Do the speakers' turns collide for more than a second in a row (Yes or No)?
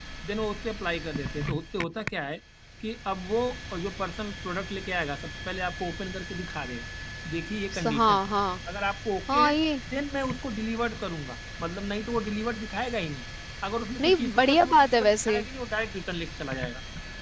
Yes